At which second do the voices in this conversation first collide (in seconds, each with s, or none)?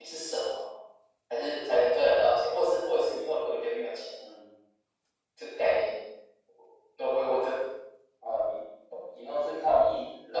none